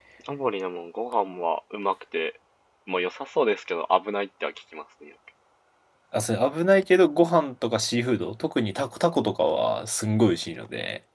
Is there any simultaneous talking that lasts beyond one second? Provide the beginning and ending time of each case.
none

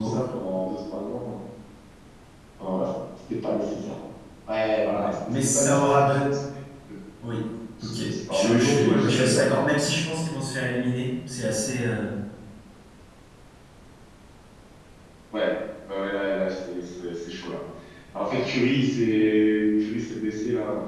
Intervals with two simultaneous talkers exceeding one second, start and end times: 5.0-6.3, 7.8-9.4

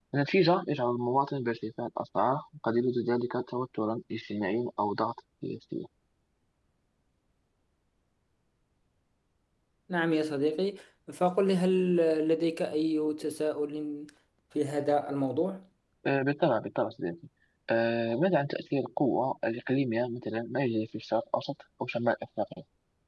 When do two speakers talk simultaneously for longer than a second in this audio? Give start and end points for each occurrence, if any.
none

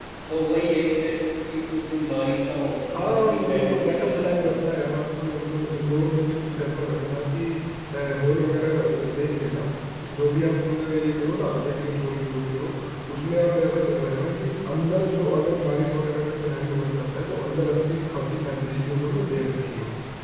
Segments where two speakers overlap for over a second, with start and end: 3.0-4.5

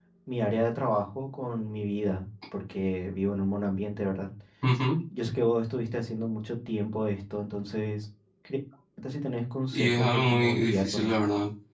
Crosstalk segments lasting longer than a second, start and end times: 9.7-11.1

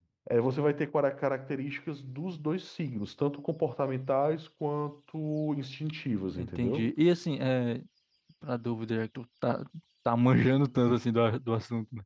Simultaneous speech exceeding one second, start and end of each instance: none

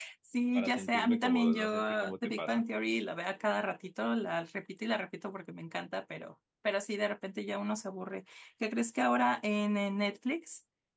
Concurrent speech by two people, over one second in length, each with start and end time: 0.6-2.6

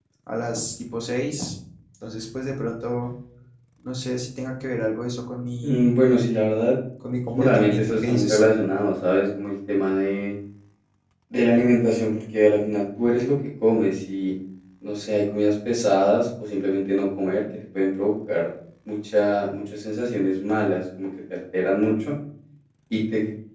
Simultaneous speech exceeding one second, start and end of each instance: 7.3-8.5

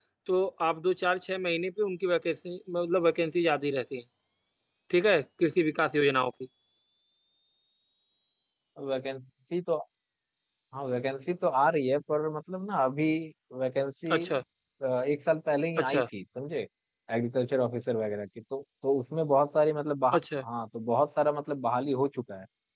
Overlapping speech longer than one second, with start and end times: none

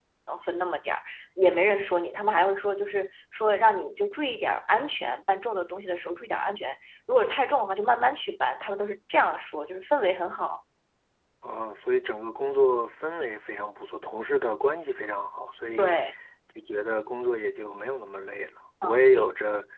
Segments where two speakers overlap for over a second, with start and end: none

